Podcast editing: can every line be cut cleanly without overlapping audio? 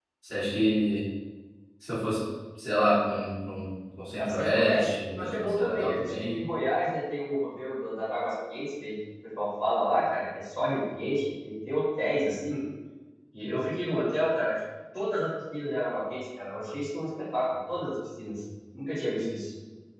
No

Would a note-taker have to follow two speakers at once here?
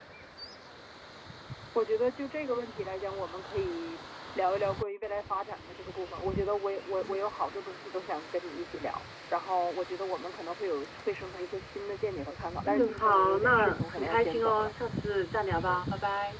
Yes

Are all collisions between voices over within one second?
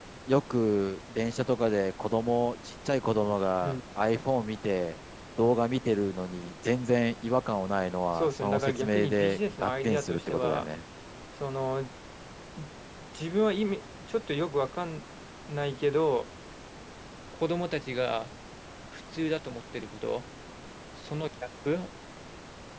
No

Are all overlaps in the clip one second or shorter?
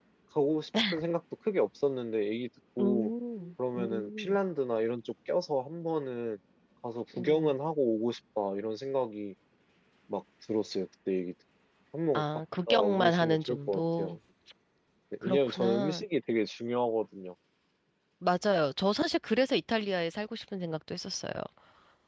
No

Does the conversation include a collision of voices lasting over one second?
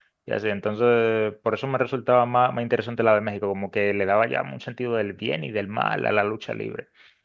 No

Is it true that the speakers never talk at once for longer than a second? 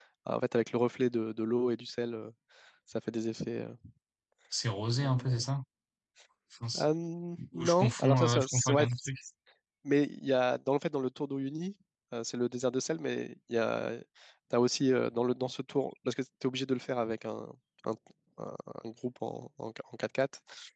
No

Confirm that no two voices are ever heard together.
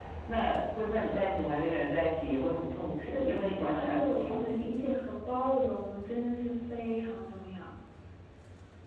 No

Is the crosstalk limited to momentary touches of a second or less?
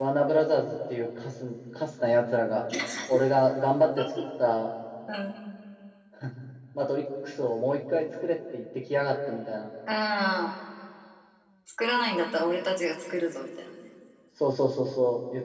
Yes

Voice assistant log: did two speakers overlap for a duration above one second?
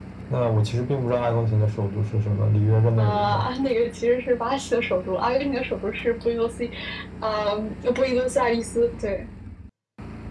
No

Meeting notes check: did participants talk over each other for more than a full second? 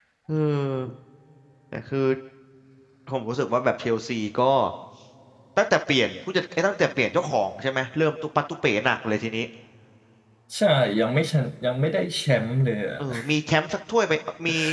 No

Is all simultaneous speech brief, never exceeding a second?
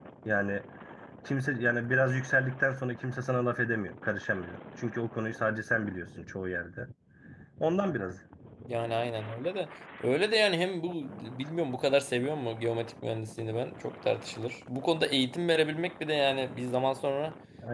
Yes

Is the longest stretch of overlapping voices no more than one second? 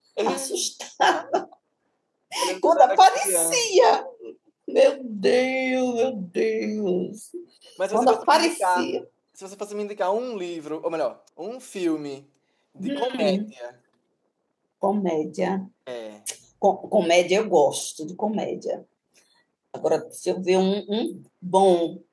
No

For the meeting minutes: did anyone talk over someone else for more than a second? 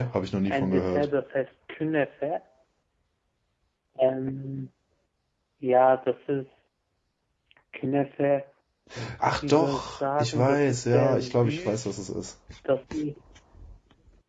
Yes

